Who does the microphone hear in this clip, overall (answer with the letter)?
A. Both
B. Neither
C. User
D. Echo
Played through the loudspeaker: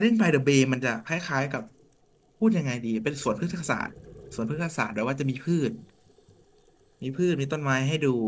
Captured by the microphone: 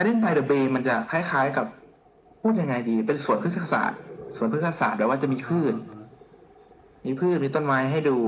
A